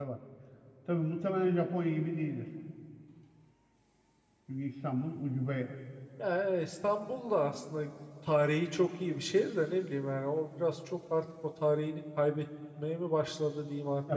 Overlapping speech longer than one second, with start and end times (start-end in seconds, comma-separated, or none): none